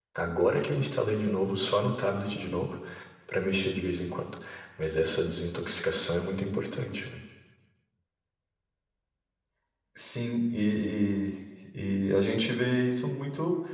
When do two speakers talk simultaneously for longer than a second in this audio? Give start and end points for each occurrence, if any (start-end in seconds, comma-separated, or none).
none